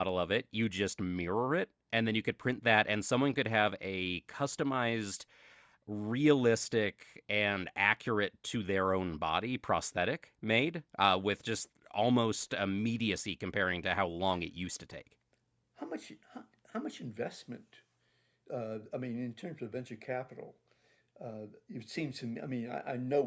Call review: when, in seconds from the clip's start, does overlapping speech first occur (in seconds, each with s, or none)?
none